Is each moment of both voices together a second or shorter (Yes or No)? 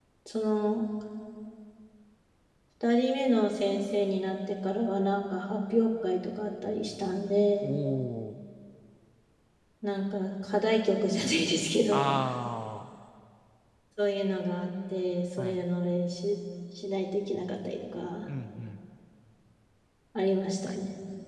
Yes